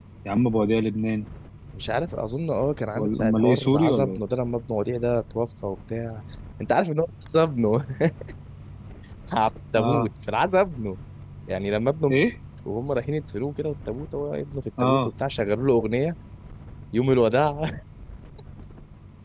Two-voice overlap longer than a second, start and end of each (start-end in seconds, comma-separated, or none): 3.0-4.2